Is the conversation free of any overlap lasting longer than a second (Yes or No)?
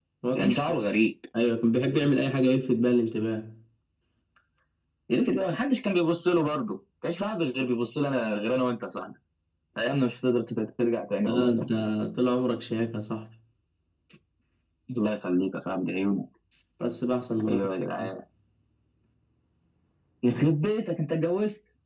Yes